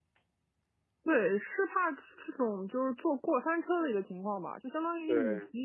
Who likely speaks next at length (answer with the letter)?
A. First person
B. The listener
A